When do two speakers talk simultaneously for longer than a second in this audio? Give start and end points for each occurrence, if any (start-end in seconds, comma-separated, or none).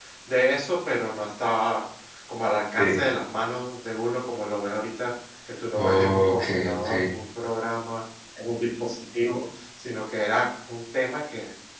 5.8-7.0